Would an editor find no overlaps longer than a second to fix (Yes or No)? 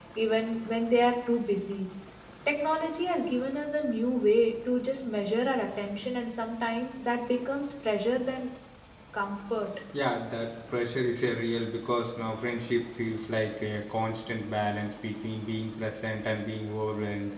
Yes